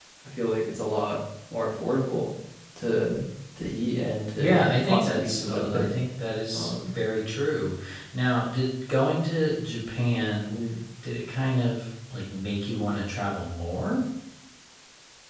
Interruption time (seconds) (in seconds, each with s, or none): 4.3 s